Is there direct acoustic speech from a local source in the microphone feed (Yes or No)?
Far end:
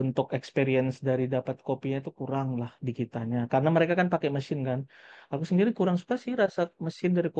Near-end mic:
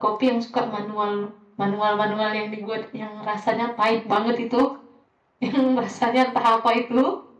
Yes